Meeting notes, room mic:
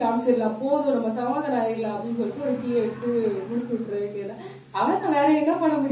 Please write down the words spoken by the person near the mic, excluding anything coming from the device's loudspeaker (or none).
none